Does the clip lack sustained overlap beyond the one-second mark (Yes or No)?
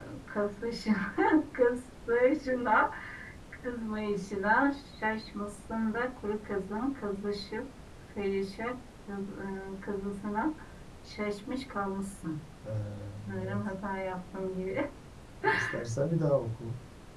Yes